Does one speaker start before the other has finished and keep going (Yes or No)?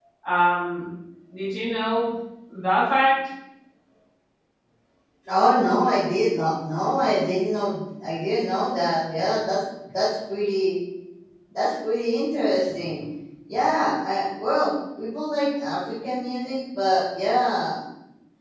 No